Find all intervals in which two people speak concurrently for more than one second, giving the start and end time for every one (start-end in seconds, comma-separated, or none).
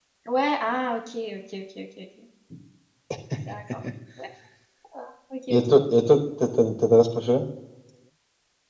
none